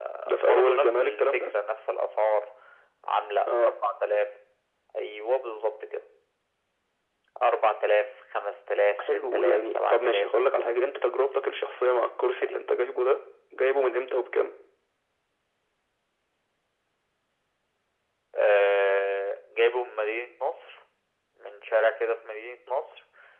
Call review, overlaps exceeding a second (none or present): present